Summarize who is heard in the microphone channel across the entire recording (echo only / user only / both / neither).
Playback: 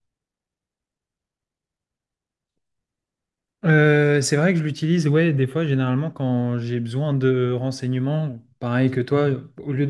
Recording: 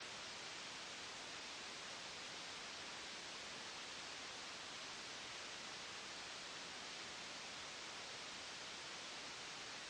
neither